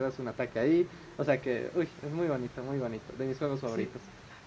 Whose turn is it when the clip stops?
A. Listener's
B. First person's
A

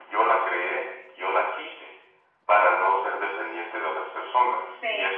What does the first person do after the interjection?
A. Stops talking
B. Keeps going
B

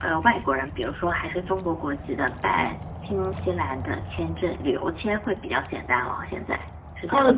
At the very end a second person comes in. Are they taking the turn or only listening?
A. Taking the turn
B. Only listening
A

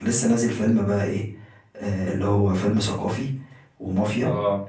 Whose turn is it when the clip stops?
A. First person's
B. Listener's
A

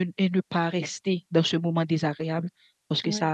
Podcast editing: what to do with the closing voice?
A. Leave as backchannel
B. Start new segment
A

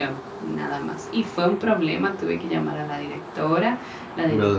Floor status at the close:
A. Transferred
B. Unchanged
B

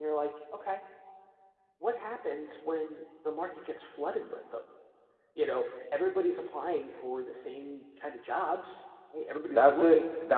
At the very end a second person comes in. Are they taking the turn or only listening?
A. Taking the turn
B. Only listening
A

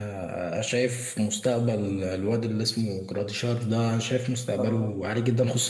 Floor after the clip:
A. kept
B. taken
A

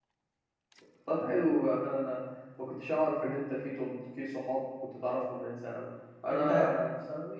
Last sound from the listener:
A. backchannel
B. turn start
A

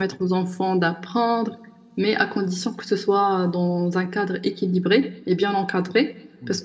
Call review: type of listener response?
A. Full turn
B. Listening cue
B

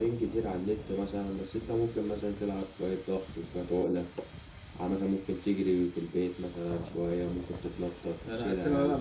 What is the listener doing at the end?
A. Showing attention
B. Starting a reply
B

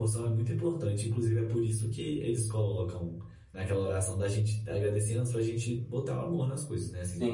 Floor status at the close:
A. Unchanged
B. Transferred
B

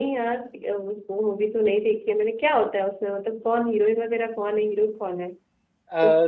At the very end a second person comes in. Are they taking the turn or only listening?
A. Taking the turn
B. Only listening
A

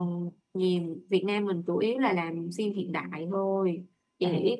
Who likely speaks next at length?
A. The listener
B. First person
B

